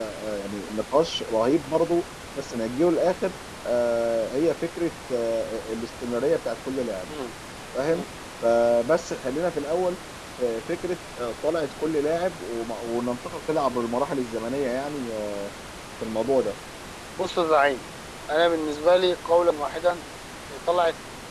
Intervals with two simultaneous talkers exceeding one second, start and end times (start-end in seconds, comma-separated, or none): none